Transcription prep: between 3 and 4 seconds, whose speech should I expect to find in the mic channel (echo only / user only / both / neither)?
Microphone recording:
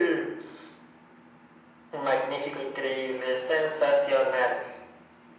echo only